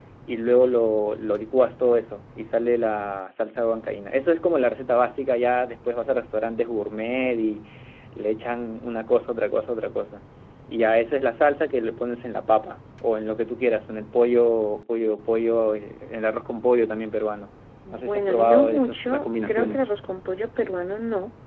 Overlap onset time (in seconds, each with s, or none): 17.9 s